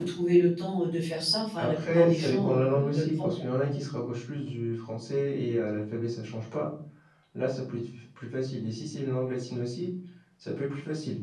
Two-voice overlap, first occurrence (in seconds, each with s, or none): 1.6 s